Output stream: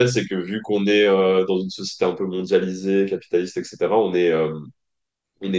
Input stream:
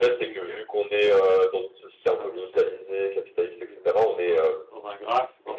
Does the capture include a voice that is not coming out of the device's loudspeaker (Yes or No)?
Yes